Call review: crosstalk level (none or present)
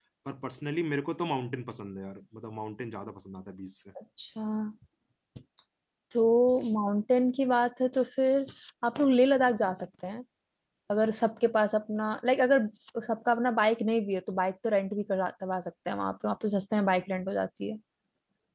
none